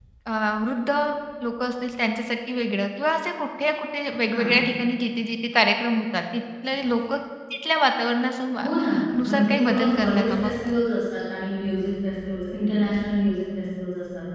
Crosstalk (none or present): present